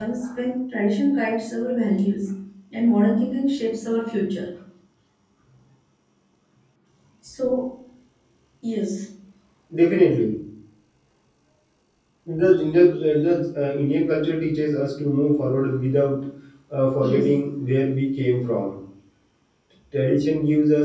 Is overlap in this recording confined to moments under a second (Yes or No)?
Yes